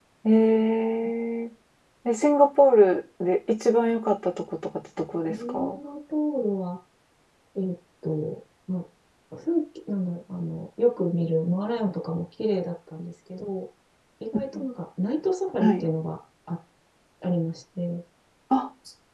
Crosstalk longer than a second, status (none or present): none